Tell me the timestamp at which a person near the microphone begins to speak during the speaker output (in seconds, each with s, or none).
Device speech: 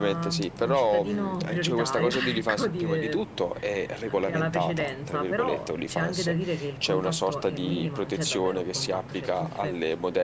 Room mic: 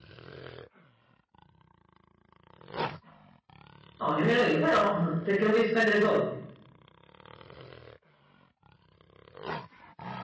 4.0 s